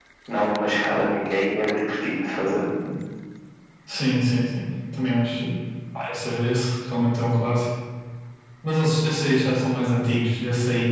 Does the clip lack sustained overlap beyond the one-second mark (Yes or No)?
Yes